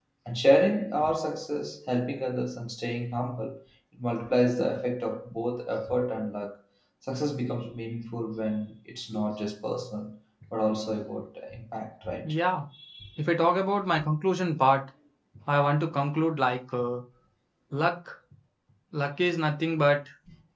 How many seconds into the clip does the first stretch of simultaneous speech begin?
none

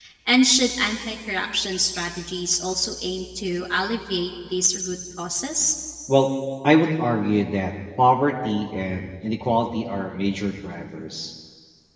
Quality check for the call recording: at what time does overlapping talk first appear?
none

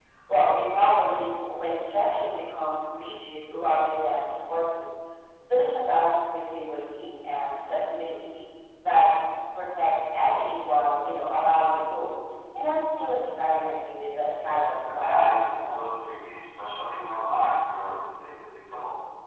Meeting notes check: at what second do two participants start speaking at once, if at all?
14.4 s

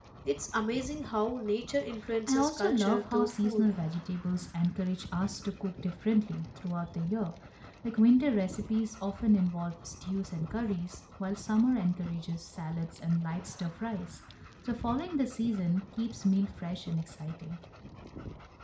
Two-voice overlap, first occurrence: 2.3 s

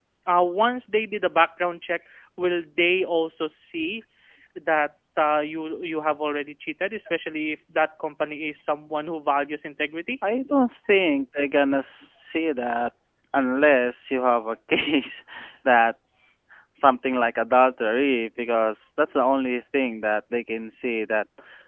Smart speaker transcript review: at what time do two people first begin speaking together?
none

